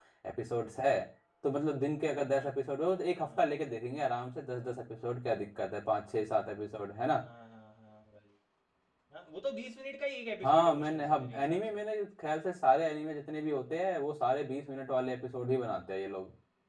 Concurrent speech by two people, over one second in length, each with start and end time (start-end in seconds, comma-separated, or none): 10.4-11.8